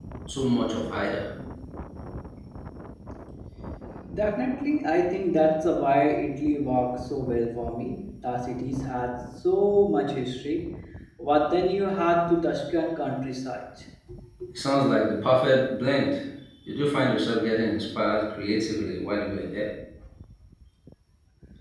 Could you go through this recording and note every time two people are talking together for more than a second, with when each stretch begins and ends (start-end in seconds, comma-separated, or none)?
none